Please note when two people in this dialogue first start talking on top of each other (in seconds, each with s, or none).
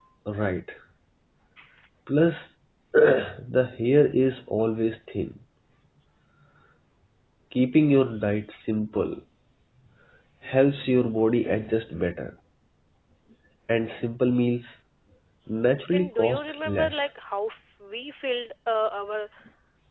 15.9 s